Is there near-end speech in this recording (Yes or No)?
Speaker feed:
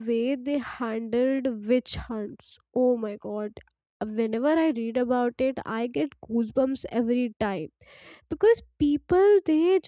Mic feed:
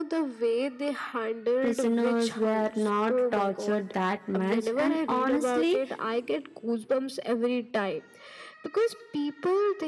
Yes